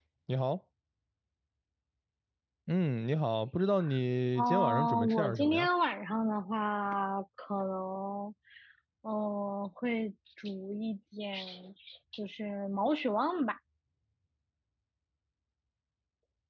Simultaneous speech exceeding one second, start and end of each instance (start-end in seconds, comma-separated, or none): 4.4-5.7